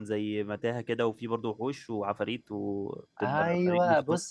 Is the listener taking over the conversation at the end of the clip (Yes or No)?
Yes